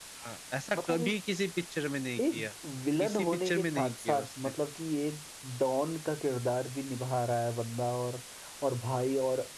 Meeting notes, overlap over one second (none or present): present